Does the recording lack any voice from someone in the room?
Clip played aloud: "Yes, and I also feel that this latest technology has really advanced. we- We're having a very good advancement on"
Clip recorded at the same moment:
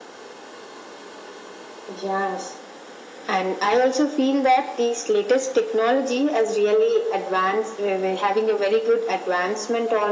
Yes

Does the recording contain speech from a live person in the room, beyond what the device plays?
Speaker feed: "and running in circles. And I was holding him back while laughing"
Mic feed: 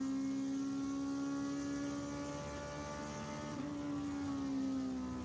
No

